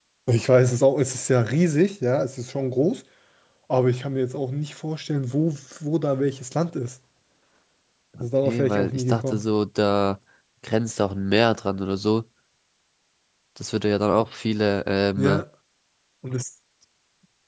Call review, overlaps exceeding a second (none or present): present